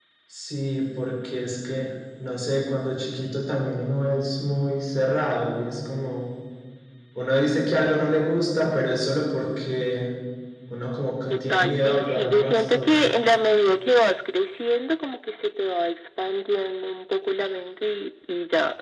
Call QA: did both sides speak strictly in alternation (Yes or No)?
No